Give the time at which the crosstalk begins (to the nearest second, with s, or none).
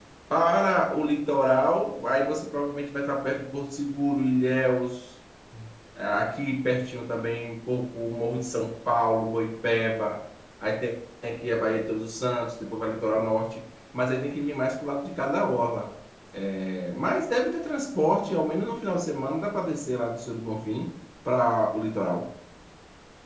none